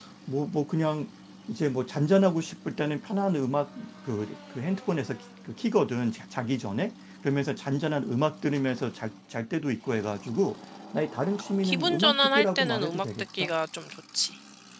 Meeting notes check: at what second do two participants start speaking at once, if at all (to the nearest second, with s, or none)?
12 s